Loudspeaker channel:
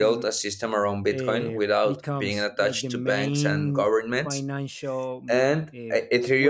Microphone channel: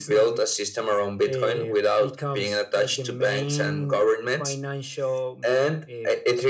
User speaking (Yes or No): No